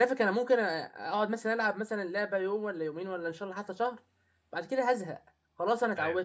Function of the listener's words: listening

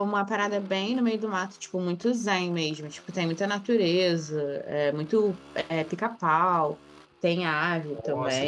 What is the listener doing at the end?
listening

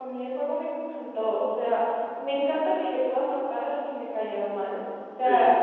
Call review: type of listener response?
listening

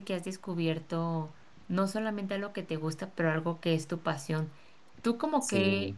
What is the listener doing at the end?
listening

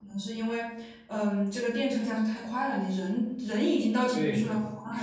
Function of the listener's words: taking over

